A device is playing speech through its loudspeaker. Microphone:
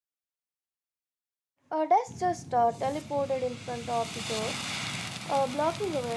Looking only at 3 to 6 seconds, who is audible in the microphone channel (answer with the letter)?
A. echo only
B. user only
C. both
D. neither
B